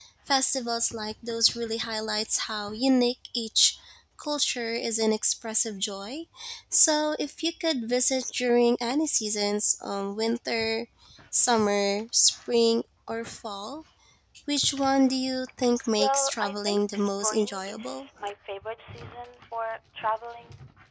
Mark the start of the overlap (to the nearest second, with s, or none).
16 s